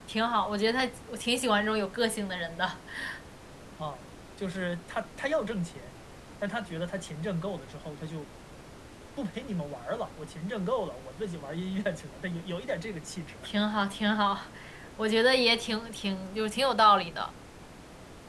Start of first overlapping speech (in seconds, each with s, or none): none